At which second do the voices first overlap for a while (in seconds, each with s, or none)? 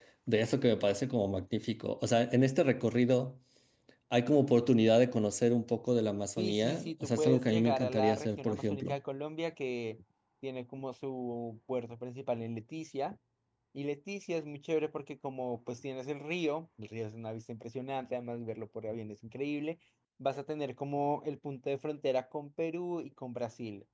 6.4 s